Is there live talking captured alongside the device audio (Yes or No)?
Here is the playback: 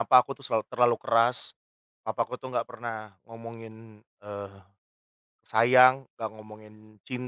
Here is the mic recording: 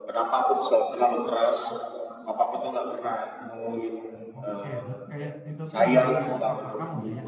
Yes